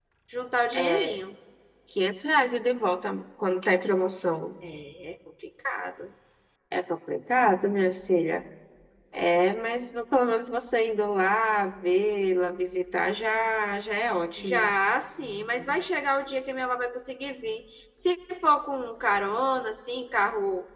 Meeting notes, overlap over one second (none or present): none